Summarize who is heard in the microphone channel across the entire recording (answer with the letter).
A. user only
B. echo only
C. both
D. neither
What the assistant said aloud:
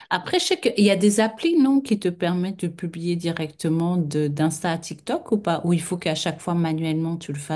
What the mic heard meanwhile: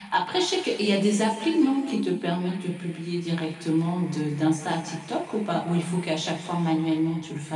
B